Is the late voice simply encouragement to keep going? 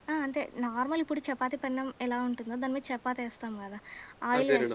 Yes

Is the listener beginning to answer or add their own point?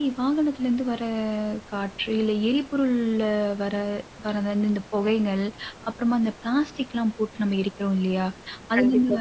No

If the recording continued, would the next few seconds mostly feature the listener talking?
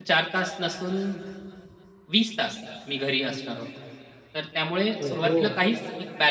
No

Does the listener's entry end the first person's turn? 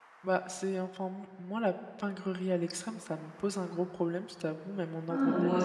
Yes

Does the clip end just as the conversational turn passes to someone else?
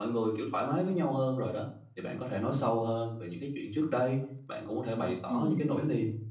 No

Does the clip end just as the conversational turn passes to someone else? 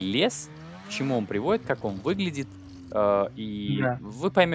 No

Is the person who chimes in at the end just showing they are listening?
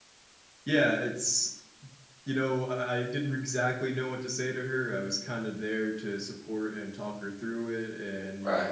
Yes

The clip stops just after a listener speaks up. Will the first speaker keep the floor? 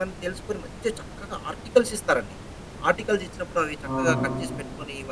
Yes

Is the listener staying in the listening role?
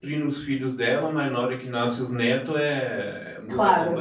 No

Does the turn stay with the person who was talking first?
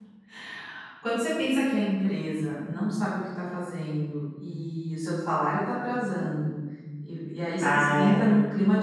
Yes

